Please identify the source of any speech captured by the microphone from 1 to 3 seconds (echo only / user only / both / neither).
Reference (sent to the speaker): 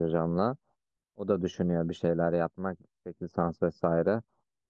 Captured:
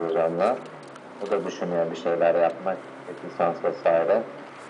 echo only